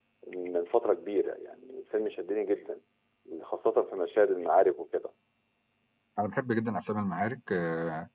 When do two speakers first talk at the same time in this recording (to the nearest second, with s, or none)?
none